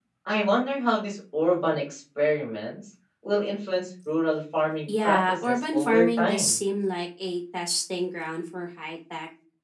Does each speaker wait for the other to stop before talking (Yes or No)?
No